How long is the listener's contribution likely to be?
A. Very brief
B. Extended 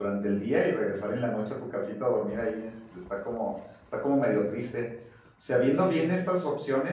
A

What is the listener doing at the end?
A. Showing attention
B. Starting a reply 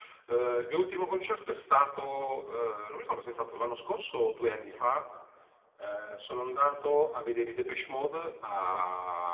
A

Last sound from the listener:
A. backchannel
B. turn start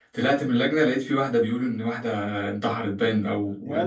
A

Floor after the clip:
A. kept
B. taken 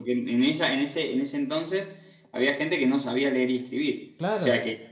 A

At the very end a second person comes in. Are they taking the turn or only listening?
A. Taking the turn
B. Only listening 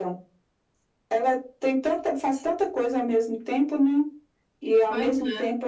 B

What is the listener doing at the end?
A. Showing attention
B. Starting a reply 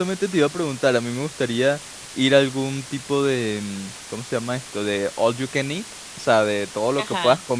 A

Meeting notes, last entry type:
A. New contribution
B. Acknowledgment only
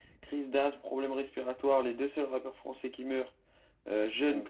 B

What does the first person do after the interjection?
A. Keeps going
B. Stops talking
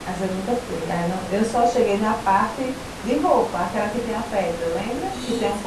B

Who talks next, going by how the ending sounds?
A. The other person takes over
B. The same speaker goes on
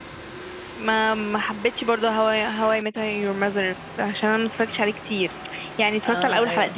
B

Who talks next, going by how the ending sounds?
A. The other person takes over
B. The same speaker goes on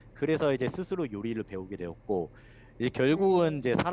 B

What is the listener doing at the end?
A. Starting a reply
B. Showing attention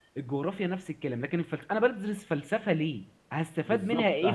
A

